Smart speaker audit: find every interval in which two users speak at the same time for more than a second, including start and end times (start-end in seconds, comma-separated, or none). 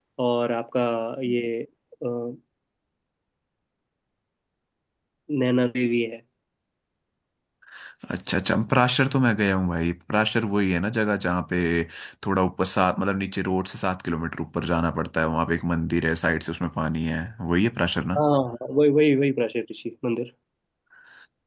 none